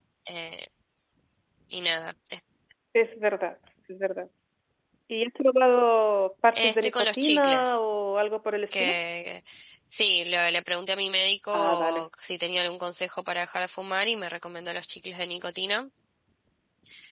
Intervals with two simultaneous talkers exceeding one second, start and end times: 6.5-7.8

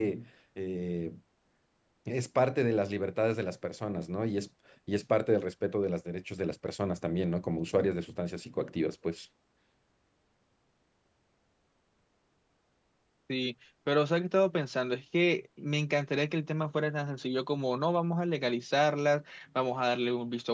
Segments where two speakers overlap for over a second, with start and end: none

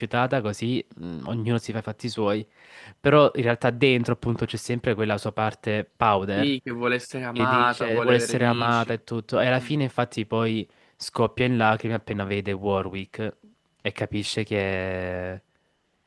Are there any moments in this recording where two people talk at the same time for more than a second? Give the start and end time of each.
7.3-8.9

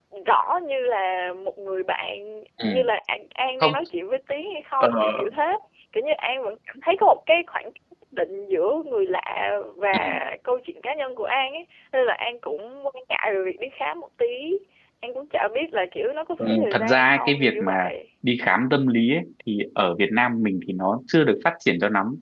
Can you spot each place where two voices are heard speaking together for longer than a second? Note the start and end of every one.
16.4-17.9

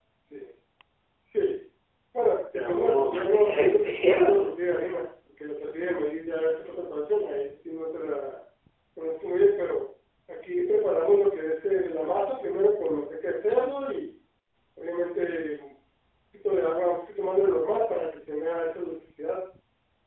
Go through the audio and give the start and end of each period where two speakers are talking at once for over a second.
2.6-4.5

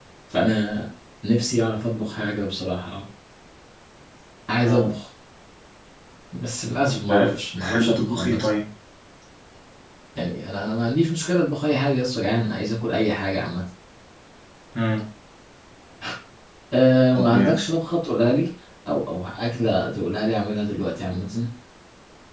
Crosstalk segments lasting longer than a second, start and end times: 6.9-8.5

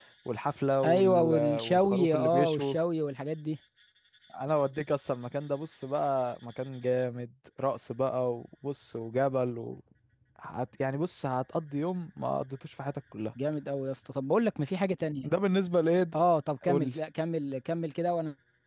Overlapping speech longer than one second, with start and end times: 0.8-2.8

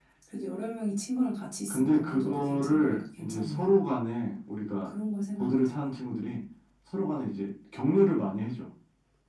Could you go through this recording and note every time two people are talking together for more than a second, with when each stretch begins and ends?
1.7-3.8

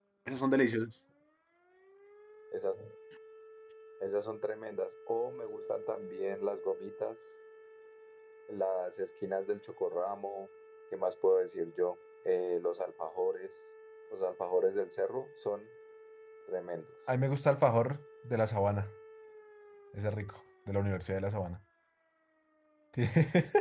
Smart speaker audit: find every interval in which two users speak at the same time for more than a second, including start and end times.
none

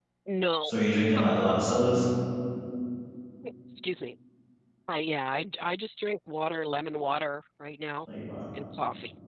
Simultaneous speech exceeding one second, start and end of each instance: none

